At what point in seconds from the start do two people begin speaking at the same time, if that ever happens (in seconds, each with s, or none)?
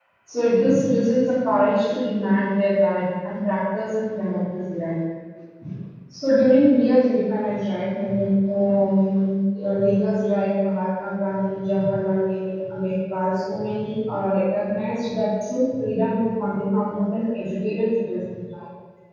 none